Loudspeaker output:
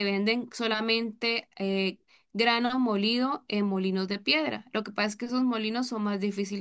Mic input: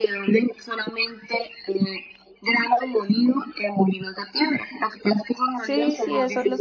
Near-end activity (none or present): present